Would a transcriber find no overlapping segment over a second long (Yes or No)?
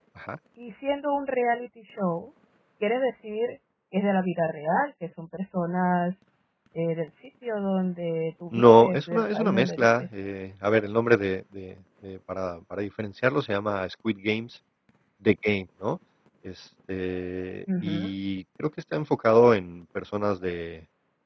No